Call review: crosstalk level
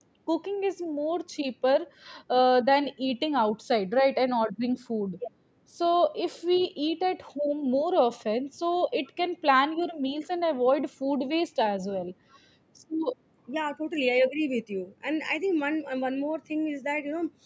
none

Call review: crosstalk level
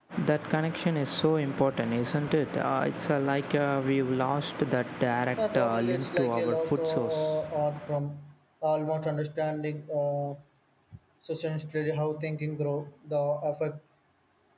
present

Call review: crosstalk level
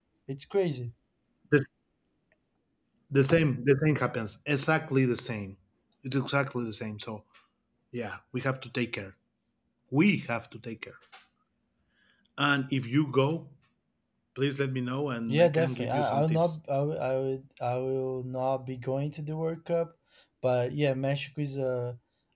present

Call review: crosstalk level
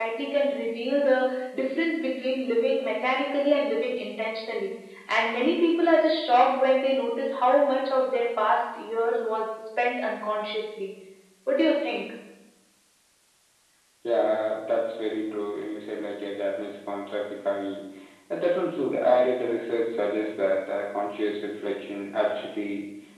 none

